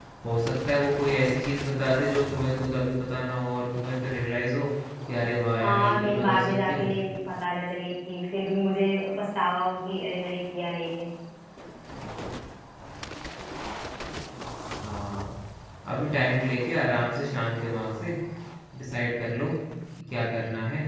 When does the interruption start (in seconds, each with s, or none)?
5.6 s